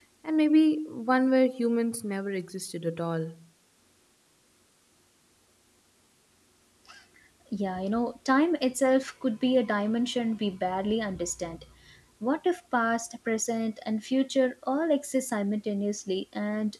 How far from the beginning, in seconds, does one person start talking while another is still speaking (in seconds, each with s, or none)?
none